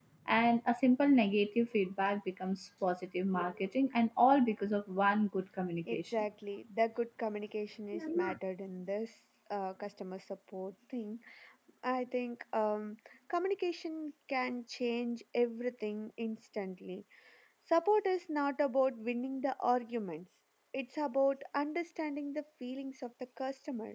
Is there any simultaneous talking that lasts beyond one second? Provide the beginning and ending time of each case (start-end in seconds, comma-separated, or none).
none